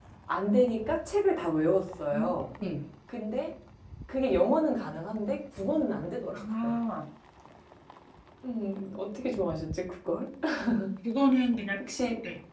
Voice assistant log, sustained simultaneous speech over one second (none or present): none